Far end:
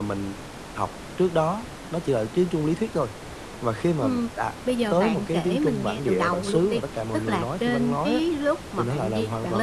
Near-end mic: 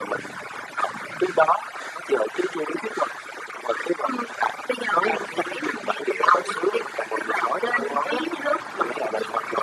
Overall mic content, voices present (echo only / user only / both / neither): echo only